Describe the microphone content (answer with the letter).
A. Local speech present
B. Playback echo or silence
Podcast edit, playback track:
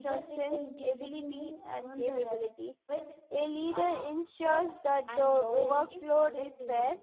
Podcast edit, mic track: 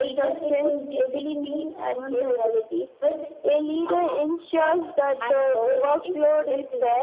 B